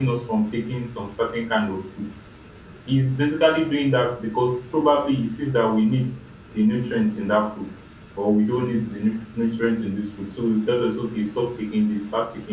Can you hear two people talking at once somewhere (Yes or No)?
No